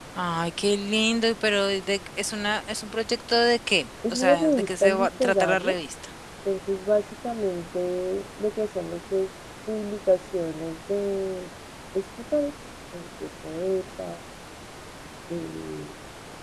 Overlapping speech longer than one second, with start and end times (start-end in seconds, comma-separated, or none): 4.1-5.8